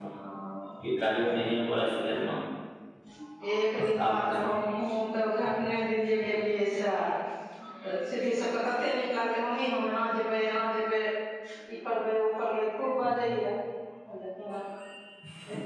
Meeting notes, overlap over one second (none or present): none